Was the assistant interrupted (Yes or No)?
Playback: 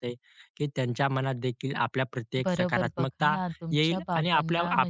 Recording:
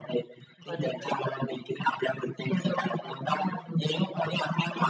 Yes